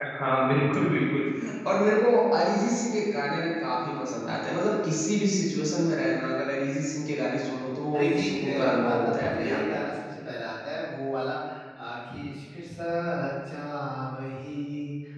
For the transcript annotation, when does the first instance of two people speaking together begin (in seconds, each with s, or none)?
7.9 s